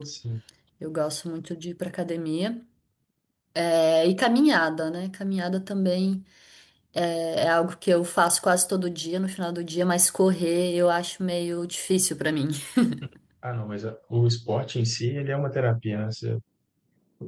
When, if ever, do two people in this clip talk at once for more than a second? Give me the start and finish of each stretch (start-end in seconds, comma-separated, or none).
none